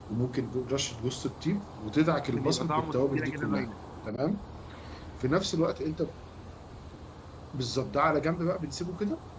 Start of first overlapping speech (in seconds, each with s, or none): 2.2 s